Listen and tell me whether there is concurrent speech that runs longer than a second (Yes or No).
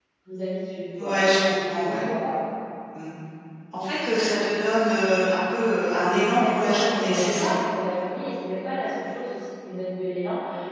Yes